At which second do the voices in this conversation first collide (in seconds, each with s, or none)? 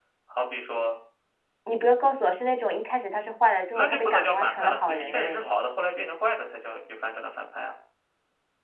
3.7 s